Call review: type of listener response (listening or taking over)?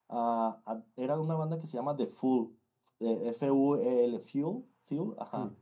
listening